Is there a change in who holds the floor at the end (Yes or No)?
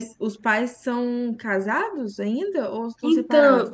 Yes